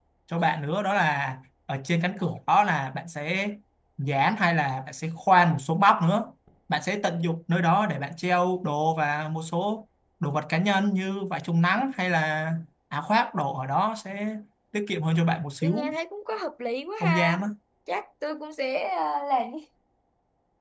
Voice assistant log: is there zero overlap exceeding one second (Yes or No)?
Yes